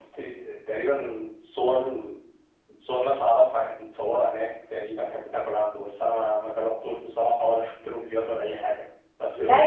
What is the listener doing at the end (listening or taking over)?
taking over